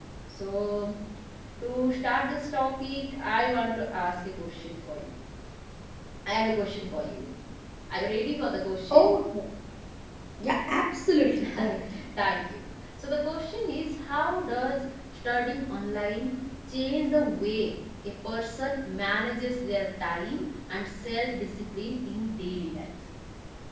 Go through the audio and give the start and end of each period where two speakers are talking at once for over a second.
none

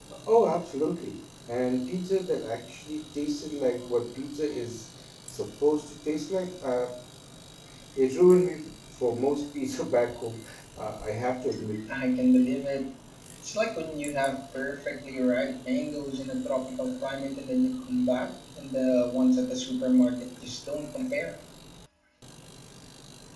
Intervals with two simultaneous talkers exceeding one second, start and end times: none

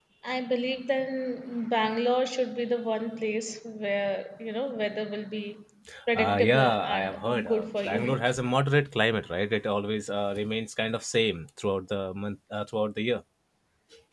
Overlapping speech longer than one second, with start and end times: 6.2-8.2

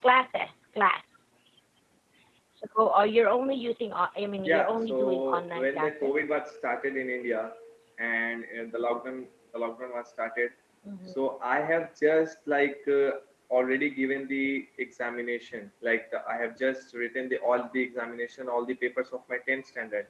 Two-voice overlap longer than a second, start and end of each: 4.4-6.2

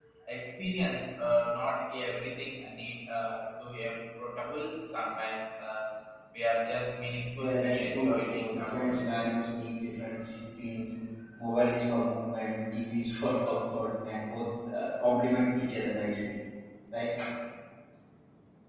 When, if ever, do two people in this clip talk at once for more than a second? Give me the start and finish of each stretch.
7.3-9.0

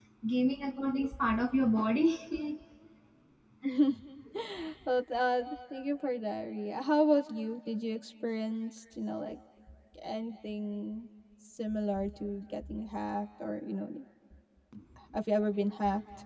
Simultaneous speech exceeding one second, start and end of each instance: none

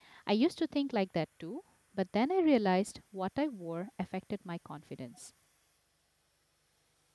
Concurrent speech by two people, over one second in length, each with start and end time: none

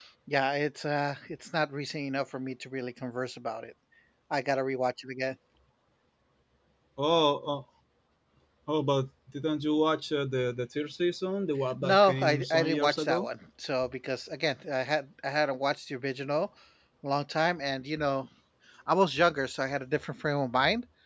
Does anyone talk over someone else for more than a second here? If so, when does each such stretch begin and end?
11.8-13.3

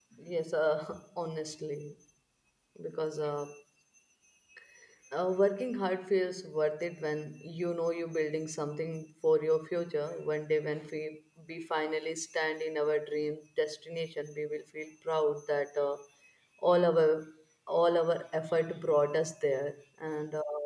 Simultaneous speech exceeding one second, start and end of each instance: none

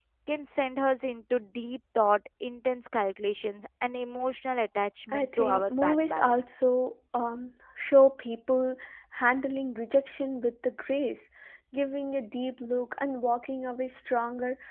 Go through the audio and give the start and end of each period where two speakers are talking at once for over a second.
5.1-6.4

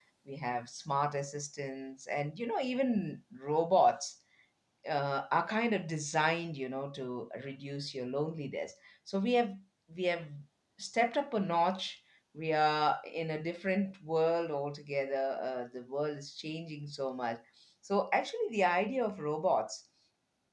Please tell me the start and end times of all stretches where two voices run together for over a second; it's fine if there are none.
none

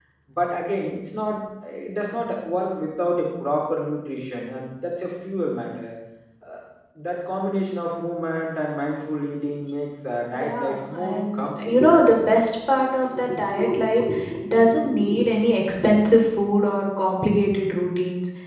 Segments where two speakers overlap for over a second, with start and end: 10.3-11.8

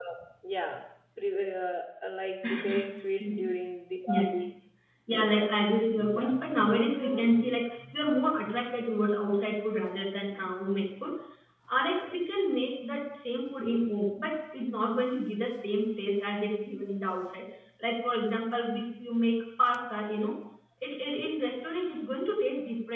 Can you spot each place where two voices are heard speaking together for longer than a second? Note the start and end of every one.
none

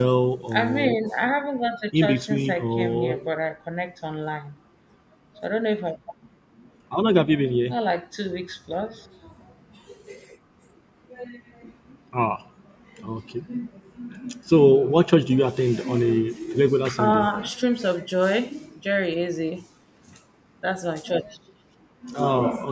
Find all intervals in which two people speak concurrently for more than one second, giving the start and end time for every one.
2.0-3.2

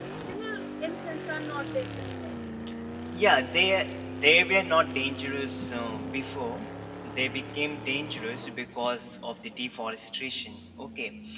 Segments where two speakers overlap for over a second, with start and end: none

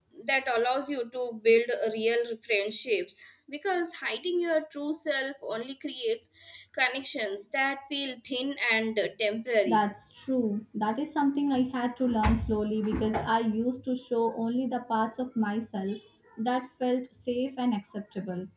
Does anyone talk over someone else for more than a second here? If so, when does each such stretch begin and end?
none

